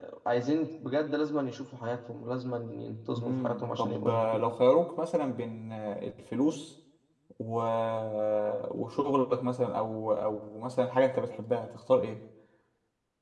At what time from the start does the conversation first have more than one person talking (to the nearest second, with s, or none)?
3 s